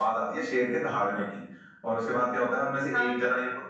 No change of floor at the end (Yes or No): Yes